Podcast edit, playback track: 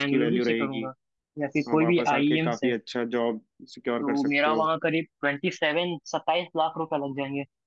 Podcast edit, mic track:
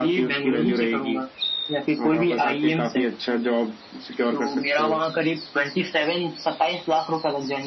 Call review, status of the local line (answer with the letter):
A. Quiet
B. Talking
A